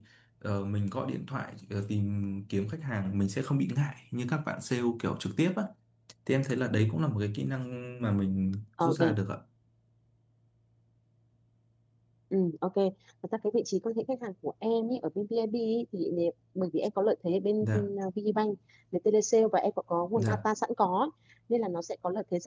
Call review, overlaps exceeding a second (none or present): none